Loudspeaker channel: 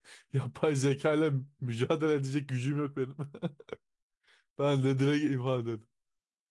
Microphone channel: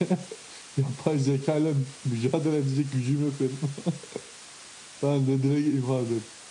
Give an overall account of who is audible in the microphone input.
echo only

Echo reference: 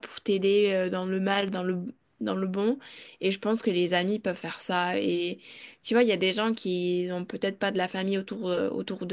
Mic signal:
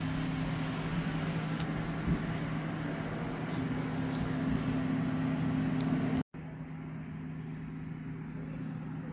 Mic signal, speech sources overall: neither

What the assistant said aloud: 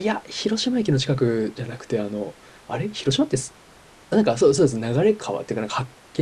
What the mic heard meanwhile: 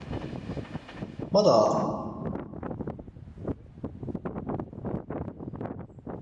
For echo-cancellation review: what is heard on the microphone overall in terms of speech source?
user only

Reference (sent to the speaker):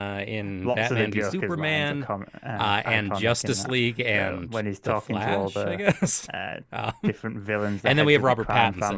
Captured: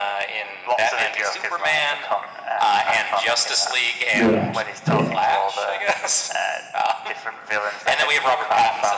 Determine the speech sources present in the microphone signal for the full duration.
both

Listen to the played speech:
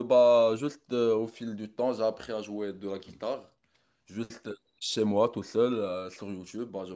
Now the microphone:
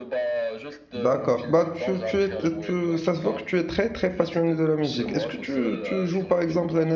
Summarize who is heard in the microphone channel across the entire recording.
both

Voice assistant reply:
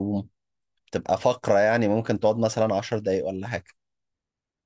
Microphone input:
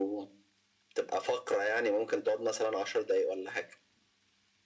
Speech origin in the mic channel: echo only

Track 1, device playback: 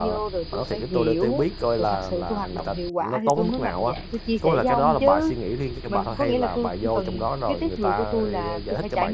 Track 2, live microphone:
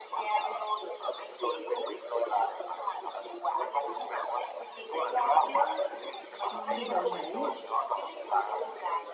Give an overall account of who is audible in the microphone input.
both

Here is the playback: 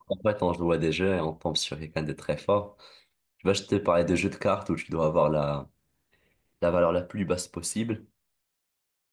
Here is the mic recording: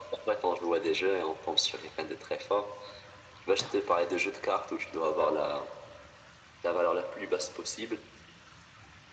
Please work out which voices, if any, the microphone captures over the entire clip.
echo only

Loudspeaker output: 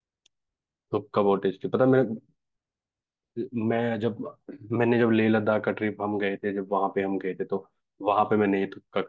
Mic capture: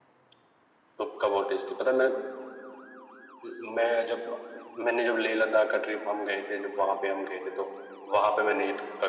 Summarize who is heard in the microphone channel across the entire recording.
echo only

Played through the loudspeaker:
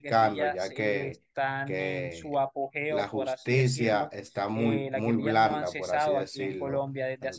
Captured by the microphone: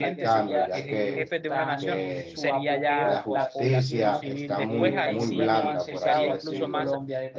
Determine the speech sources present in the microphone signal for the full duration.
both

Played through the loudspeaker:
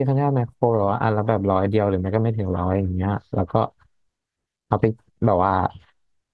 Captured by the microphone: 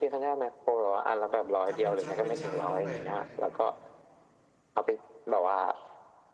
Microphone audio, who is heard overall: both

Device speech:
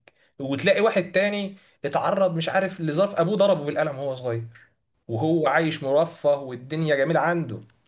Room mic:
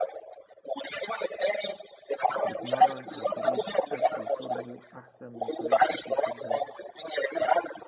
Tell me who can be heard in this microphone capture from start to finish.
both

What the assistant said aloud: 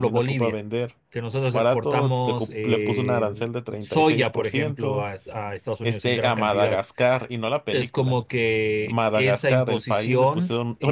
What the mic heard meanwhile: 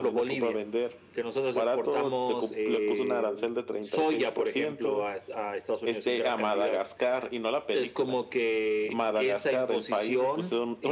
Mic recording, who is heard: echo only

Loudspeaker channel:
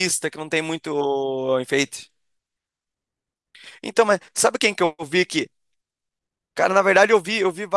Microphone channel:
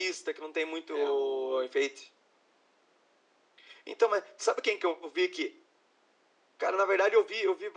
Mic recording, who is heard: both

